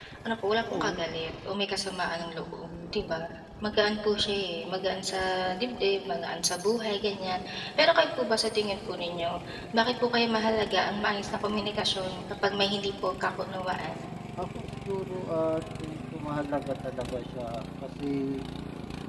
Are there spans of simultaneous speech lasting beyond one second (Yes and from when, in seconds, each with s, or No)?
No